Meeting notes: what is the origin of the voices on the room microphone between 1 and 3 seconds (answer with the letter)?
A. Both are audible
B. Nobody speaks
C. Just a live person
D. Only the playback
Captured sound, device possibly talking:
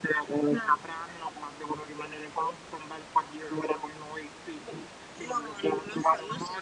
D